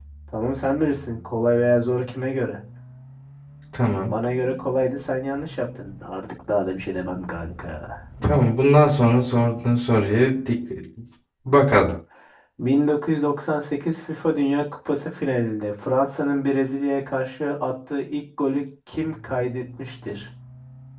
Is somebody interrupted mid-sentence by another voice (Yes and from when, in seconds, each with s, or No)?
No